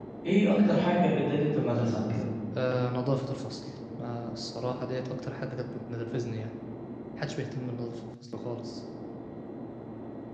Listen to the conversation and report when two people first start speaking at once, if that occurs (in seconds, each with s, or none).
none